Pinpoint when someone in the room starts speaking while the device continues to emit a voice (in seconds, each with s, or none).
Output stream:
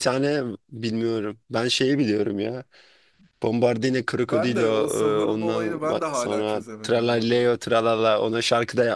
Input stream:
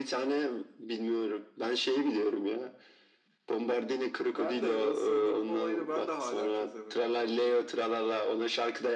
none